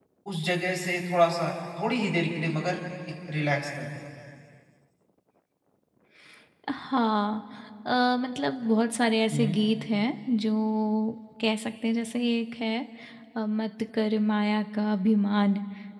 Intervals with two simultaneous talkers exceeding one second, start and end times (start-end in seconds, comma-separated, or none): none